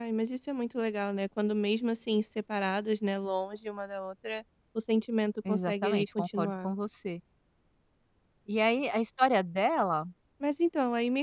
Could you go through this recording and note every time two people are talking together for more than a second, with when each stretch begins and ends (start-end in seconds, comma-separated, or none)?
5.5-6.7